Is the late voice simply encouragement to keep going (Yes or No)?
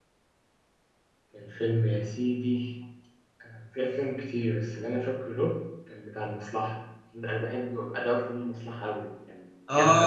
No